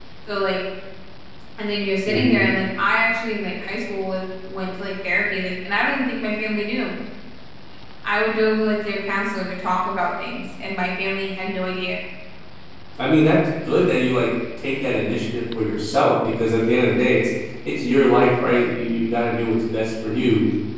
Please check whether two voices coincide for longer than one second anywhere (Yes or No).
No